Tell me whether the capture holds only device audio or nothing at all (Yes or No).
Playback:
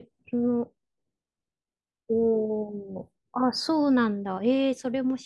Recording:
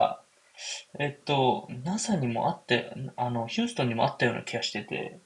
No